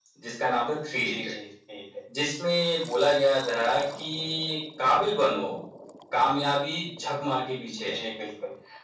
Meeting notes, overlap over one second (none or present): none